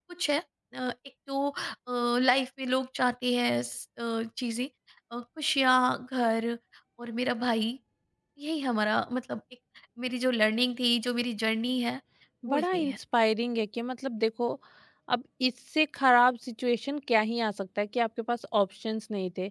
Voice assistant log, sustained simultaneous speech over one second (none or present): none